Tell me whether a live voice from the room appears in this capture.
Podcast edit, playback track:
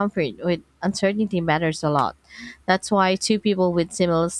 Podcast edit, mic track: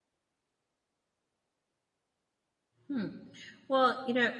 Yes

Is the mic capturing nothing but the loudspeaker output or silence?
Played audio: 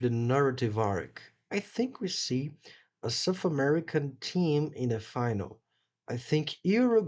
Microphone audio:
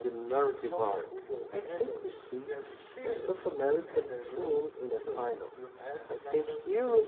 No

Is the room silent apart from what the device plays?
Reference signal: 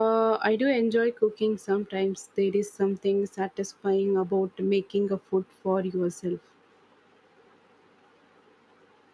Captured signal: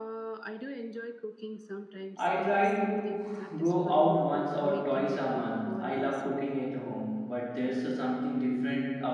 No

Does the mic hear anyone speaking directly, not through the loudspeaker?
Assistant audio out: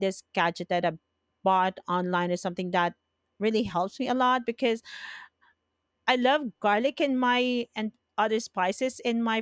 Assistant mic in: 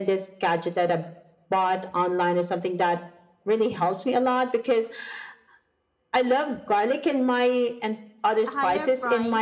Yes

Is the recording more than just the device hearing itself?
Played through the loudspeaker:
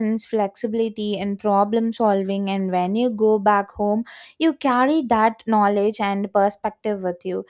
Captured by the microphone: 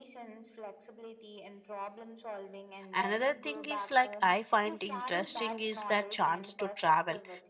Yes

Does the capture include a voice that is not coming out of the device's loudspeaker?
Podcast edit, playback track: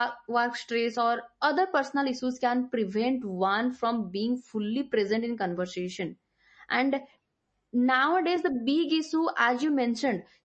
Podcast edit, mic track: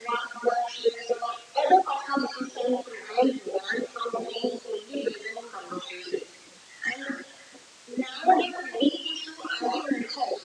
No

